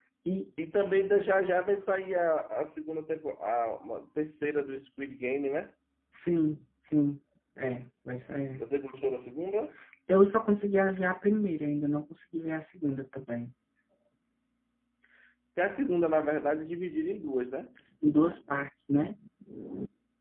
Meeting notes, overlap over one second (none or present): none